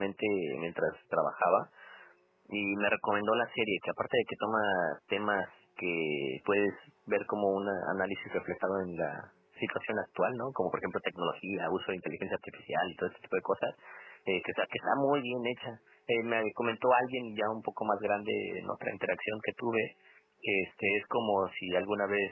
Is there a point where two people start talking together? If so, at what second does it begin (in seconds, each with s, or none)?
none